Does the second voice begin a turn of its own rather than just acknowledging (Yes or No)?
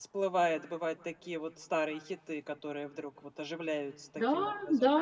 Yes